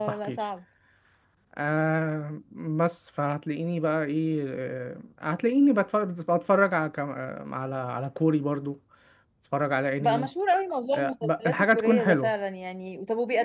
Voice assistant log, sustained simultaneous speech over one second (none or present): present